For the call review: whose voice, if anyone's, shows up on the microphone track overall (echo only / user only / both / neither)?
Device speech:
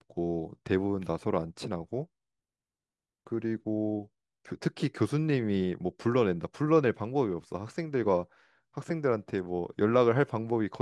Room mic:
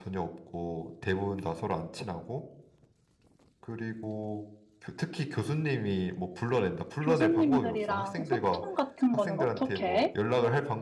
both